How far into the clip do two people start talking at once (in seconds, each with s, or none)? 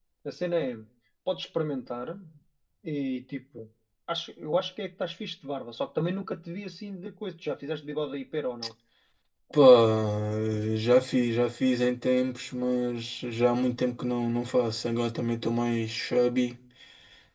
none